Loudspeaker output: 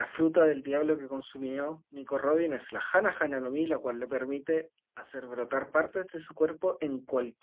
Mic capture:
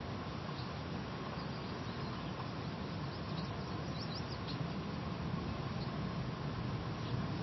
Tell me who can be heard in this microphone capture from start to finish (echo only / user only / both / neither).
neither